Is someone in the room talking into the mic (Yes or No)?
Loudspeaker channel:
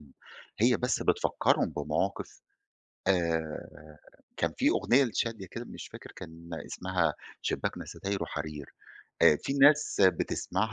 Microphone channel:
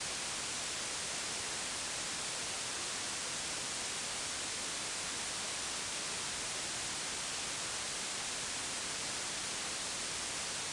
No